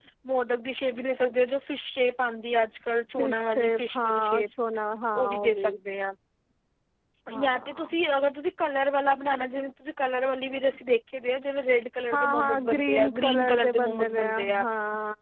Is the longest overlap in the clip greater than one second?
Yes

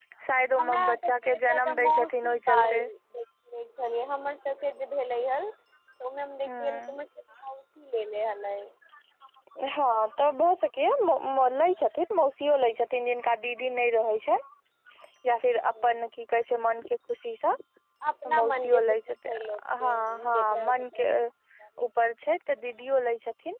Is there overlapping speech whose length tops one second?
Yes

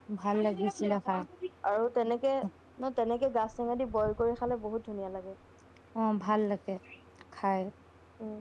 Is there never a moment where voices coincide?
Yes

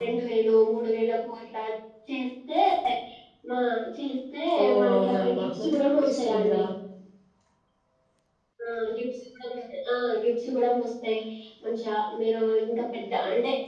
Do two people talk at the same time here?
Yes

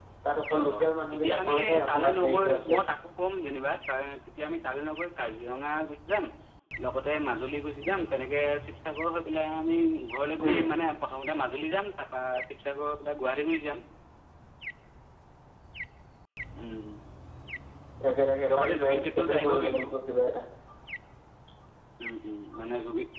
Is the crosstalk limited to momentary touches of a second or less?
No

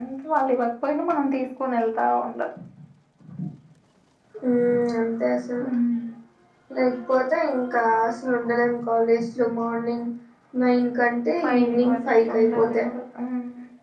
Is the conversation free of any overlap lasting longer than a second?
No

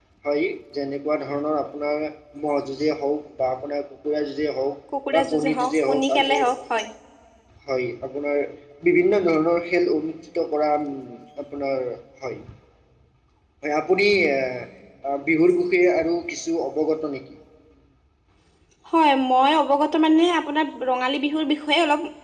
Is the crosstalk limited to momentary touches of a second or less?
No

